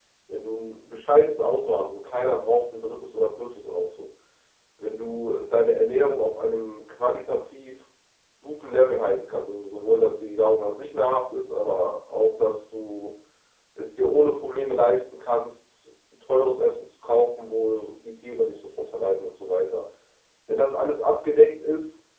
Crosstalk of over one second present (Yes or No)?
No